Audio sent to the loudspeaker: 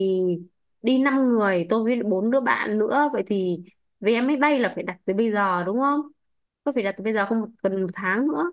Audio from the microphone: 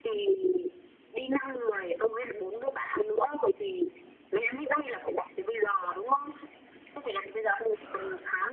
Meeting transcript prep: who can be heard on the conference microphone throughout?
echo only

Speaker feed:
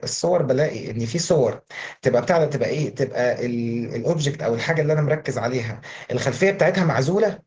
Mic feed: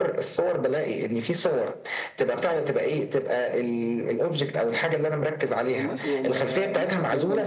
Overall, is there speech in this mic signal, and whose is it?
both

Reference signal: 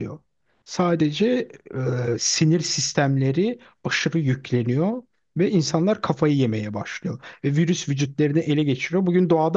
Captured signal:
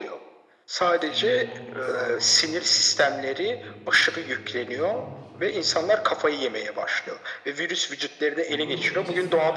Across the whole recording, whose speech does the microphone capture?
both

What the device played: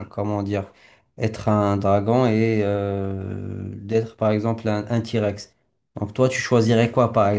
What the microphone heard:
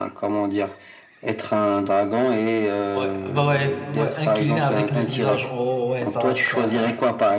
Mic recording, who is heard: both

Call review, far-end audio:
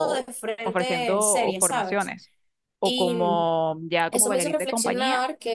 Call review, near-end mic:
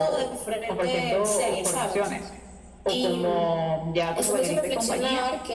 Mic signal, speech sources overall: echo only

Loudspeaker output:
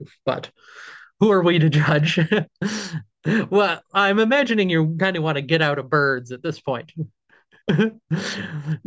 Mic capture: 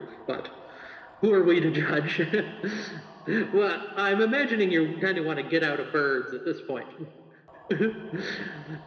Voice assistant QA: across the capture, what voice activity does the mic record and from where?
echo only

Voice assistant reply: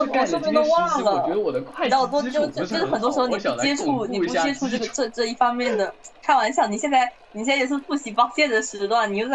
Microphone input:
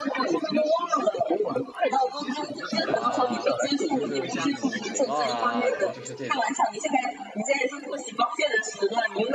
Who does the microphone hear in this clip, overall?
both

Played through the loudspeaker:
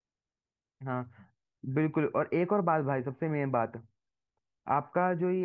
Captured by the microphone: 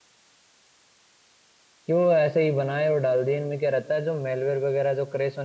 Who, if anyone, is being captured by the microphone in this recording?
user only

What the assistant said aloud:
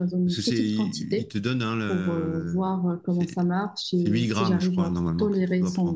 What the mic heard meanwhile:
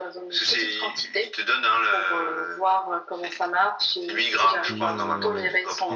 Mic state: both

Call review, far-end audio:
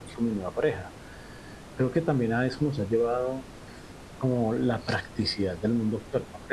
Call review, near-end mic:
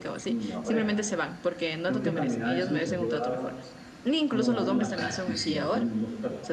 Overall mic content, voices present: both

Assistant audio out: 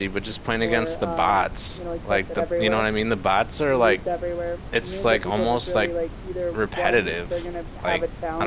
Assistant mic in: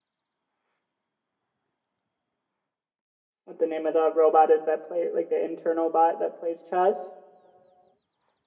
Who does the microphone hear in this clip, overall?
user only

